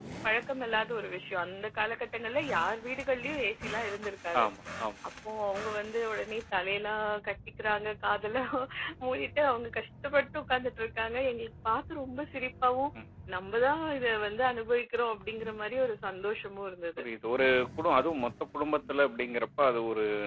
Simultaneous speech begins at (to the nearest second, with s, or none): none